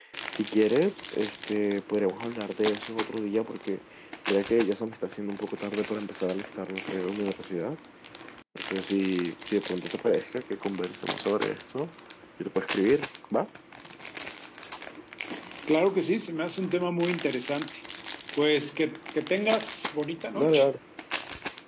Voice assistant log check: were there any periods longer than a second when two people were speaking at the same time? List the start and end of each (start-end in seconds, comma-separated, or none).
none